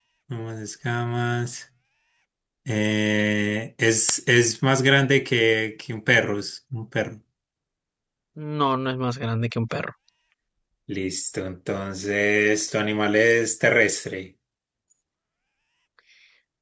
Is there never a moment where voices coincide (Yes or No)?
Yes